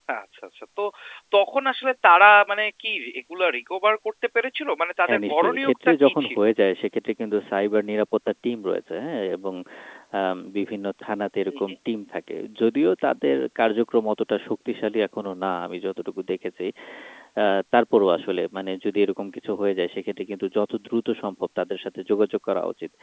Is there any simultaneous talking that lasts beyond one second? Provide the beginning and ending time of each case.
5.1-6.4

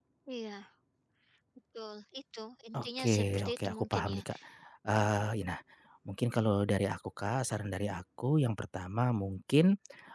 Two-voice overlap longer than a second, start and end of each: 2.8-4.2

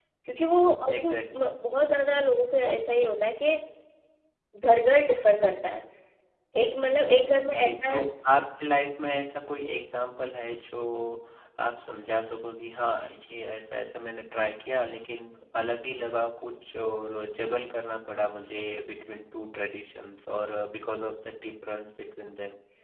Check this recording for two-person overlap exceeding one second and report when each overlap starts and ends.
none

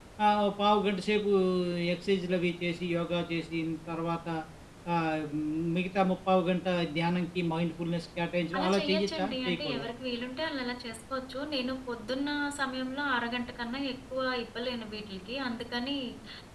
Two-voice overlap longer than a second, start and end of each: 8.6-9.9

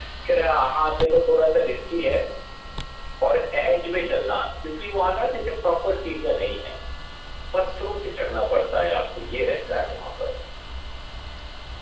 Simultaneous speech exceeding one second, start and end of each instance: none

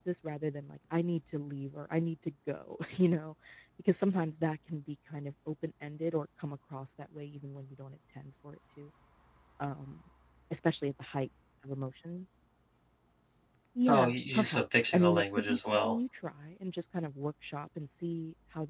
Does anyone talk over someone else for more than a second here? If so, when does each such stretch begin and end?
13.9-16.0

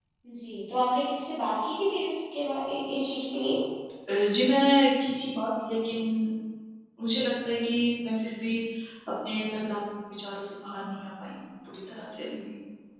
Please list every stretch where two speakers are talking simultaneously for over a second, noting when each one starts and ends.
none

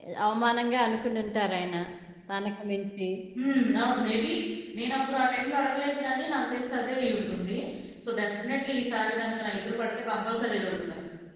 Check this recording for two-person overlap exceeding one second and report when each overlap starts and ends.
none

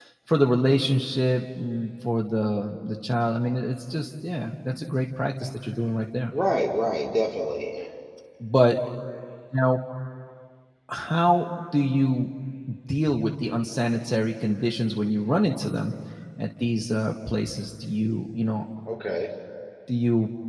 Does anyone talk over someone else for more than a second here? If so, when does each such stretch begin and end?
none

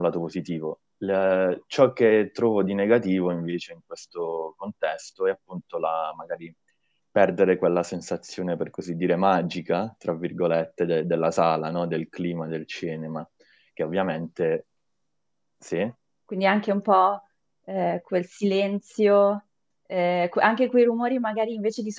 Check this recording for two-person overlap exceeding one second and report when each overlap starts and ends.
none

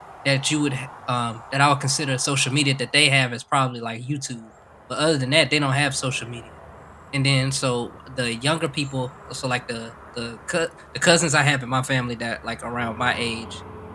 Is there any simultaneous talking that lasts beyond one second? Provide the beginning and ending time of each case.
none

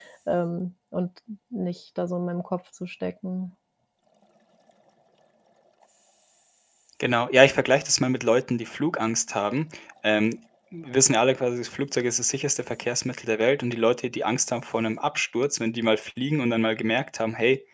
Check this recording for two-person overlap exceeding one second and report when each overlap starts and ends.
none

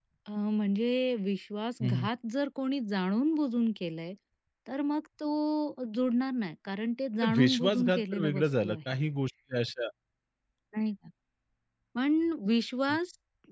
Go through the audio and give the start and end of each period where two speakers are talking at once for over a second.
7.4-8.8

